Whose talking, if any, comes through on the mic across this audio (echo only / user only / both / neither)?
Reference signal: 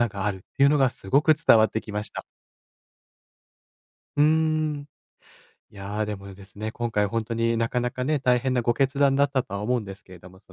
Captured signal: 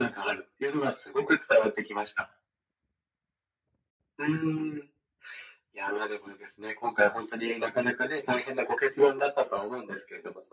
echo only